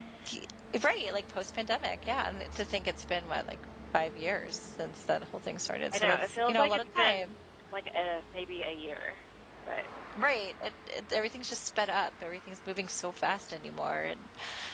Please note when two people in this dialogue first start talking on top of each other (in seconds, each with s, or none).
5.9 s